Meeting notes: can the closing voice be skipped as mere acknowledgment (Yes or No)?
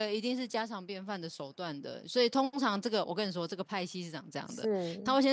Yes